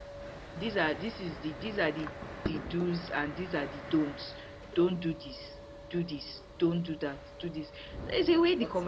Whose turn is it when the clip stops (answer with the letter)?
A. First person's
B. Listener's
A